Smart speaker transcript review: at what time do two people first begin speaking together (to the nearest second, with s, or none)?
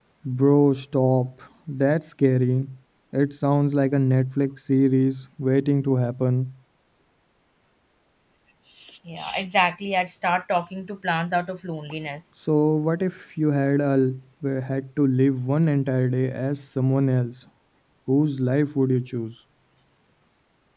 none